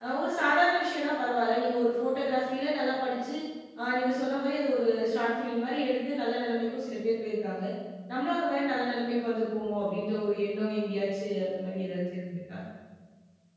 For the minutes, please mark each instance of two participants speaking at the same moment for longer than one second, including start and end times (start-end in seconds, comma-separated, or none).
none